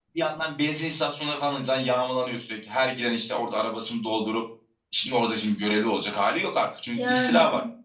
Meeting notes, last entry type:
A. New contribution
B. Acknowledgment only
B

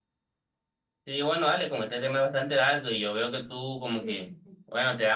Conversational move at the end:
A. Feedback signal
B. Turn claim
A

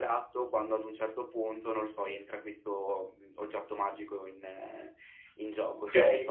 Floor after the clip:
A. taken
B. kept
A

